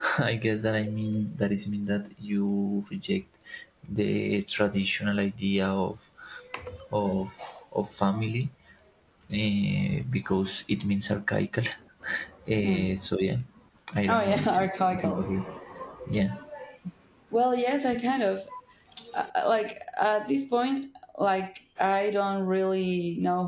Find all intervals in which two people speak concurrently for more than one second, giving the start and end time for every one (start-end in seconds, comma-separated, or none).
14.1-15.4